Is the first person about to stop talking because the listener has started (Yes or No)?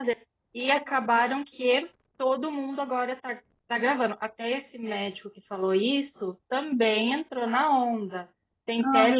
No